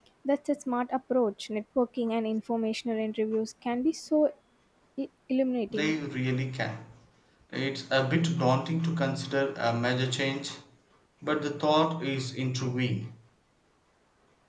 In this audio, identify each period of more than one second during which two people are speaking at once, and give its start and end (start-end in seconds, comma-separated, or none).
none